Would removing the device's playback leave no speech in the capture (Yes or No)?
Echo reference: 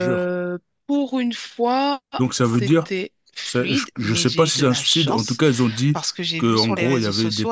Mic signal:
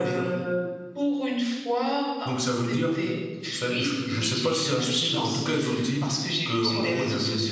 Yes